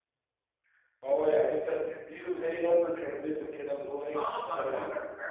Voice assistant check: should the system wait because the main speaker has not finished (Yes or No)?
No